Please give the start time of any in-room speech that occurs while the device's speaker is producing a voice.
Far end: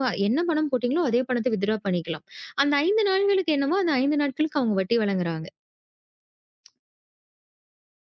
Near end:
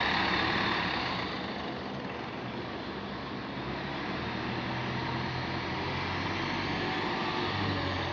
none

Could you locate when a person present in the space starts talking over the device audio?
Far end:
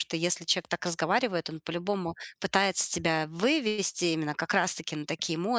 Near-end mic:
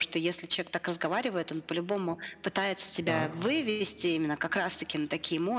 3.0 s

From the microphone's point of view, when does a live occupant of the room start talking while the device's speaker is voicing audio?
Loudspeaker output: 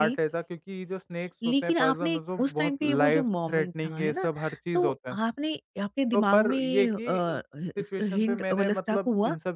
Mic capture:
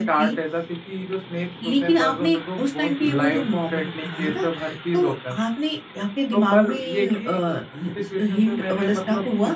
none

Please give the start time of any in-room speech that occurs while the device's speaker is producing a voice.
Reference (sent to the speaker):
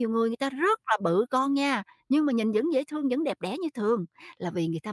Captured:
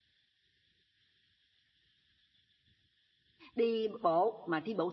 3.5 s

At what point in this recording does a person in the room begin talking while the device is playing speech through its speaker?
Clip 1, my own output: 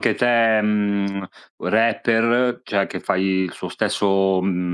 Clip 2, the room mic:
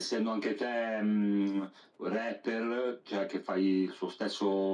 none

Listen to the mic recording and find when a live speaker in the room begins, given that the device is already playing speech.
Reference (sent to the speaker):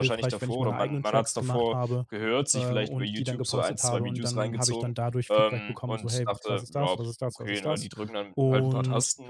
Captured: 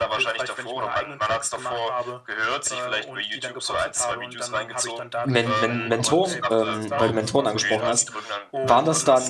5.2 s

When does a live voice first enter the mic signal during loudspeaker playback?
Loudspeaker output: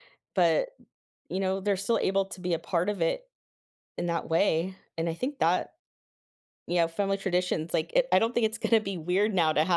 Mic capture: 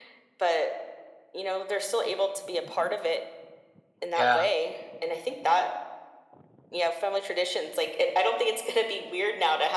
4.1 s

